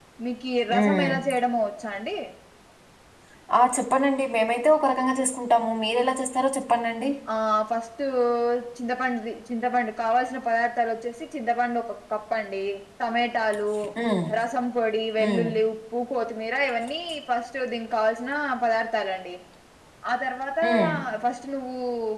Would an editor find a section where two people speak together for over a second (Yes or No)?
No